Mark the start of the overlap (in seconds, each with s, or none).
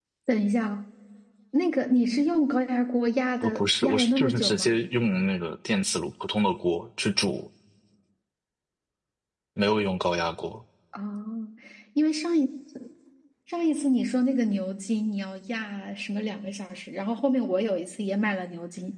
3.4 s